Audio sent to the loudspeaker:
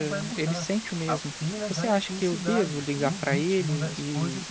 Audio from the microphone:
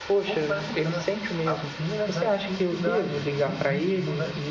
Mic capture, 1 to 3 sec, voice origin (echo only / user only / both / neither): echo only